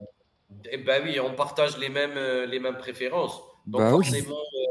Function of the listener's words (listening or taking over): listening